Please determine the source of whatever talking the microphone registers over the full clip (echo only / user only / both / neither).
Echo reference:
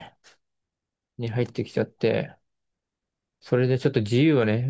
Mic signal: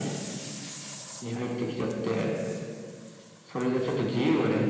echo only